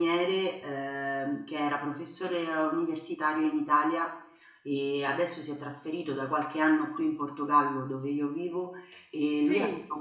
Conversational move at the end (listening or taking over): listening